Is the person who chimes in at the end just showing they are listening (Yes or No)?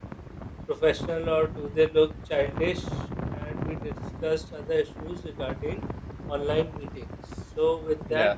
Yes